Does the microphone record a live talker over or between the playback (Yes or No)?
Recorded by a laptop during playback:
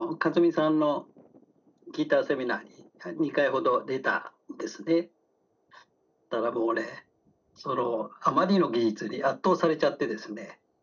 No